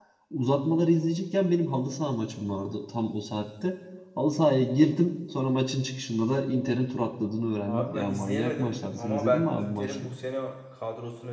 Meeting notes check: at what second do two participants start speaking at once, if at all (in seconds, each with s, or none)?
7.7 s